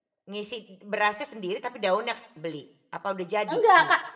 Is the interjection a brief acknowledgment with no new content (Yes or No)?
No